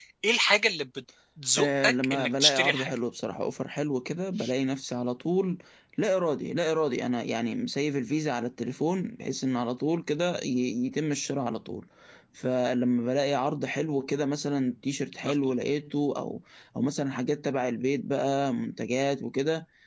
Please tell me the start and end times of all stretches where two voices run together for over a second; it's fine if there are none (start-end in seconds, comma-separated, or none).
1.6-2.9